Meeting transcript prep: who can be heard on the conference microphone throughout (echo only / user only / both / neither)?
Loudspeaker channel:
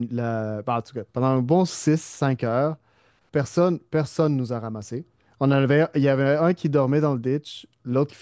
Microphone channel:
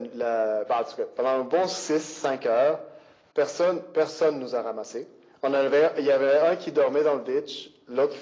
echo only